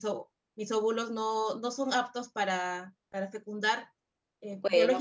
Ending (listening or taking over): listening